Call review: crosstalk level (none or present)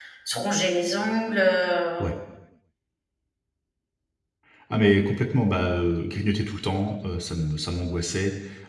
none